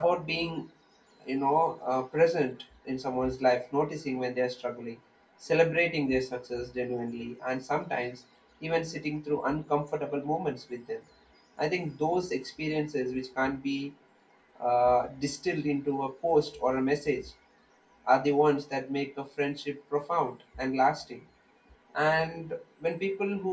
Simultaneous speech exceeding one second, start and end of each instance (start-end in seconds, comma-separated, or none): none